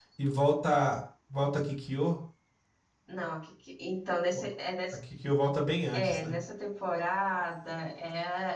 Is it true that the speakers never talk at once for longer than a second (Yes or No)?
Yes